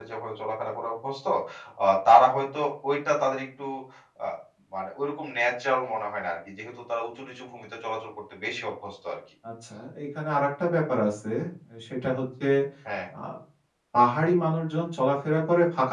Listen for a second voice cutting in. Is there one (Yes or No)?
No